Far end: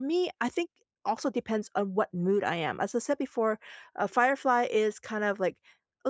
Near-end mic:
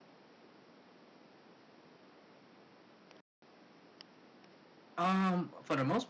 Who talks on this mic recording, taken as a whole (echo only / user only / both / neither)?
user only